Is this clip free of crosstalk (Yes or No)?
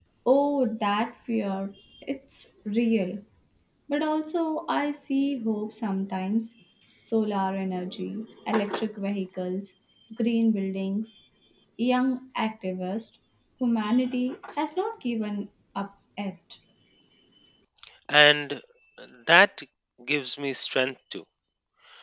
Yes